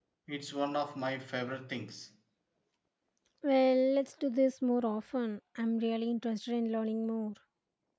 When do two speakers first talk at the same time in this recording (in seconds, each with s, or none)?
none